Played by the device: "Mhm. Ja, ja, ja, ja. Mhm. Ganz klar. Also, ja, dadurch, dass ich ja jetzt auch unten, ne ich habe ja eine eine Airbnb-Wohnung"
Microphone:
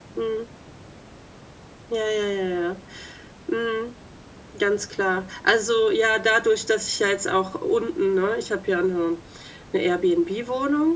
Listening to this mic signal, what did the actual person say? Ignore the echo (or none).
none